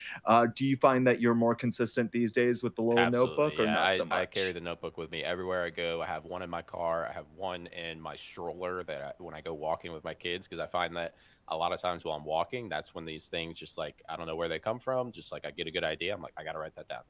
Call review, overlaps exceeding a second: present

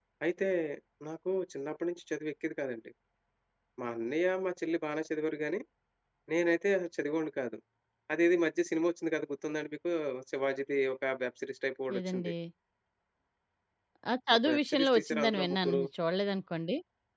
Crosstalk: present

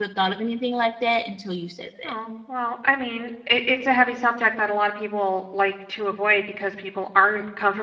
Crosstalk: none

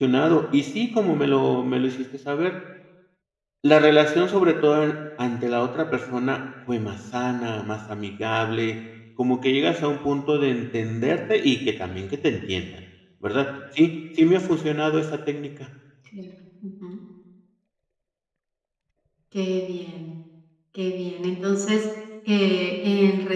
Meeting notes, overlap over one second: none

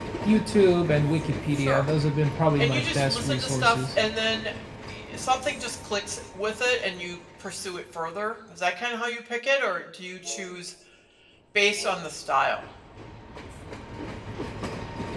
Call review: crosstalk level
present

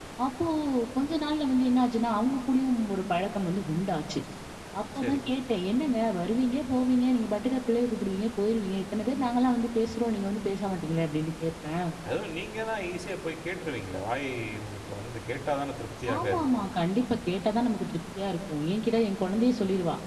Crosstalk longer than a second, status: none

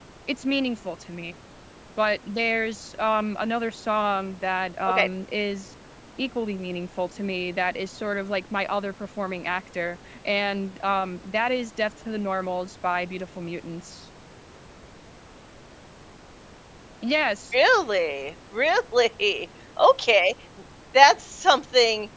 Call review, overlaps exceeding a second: none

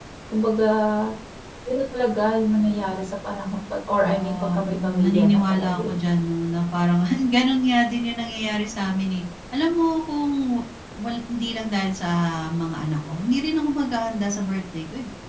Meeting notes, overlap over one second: present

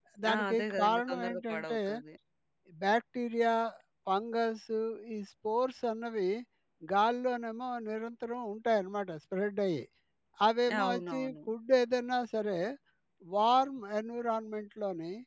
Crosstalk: present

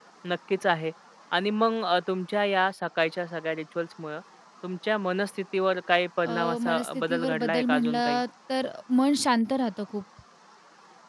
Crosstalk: present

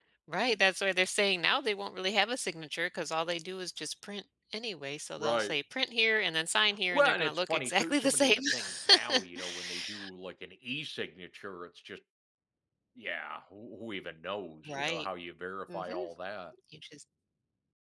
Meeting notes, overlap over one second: present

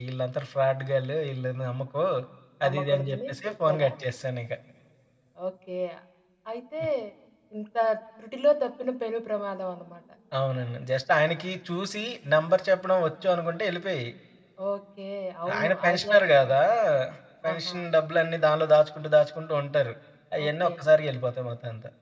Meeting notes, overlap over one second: present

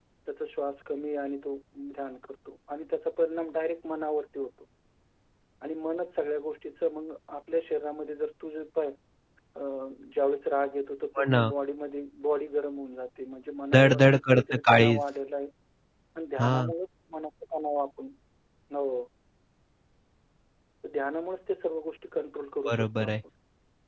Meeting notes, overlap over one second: present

